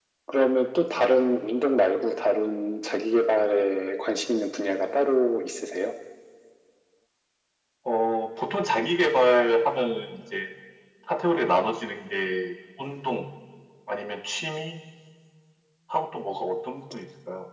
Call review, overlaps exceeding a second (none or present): none